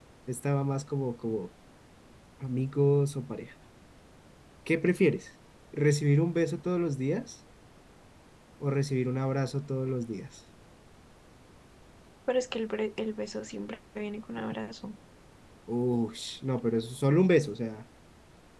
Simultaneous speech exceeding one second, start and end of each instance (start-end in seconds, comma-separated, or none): none